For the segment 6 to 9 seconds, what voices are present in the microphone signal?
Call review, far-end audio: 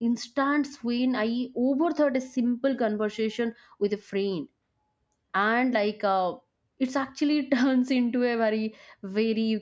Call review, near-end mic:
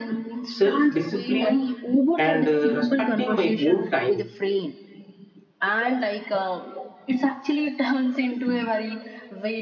echo only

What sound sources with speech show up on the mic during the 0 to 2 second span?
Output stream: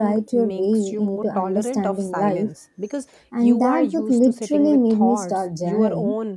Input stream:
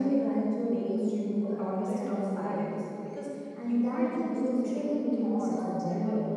echo only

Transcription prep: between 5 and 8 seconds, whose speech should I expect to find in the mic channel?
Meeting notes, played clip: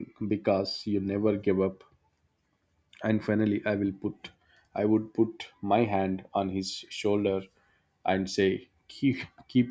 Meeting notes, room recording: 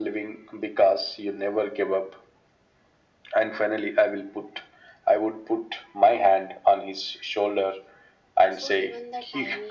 echo only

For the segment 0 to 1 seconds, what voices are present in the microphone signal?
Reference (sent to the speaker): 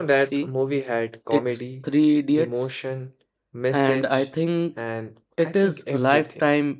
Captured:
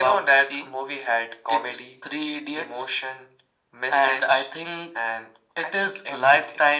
echo only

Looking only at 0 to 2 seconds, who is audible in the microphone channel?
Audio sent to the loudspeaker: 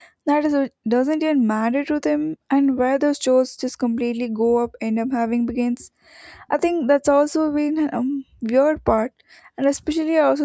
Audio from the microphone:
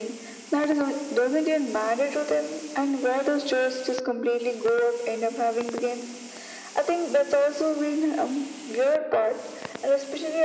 echo only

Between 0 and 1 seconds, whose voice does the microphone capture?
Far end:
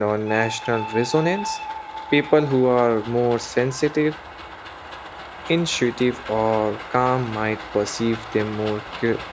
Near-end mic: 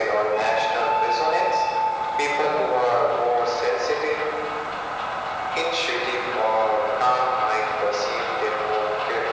echo only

